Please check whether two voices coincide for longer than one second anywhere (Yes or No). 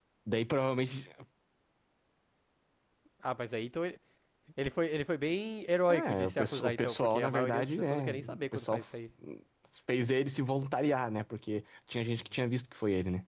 Yes